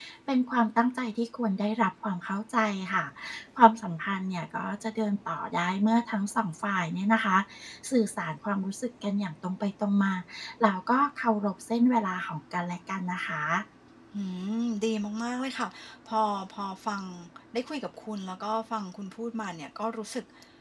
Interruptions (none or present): none